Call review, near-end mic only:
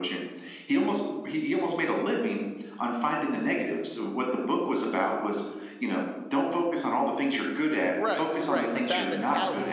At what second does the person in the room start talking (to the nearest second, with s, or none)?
8 s